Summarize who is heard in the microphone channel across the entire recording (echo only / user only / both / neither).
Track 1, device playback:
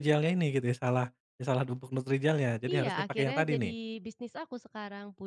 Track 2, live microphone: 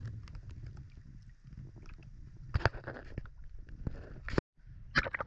neither